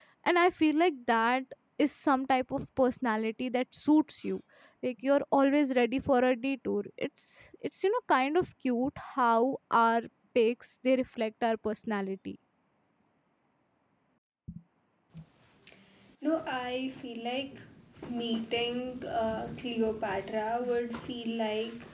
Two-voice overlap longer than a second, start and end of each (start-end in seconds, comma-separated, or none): none